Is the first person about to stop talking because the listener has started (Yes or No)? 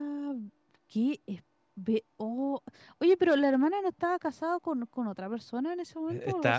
Yes